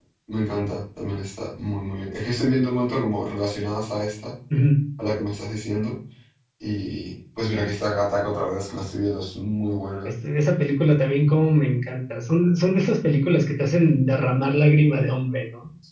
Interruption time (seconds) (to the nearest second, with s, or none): none